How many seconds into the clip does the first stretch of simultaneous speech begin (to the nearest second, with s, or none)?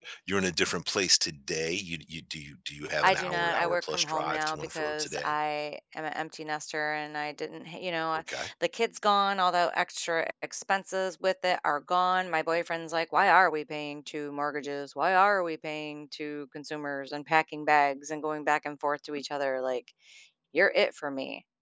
3 s